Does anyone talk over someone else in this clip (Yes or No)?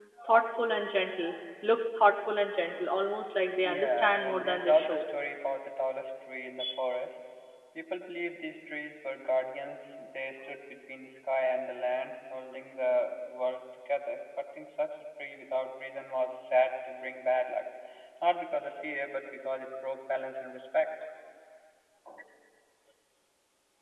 Yes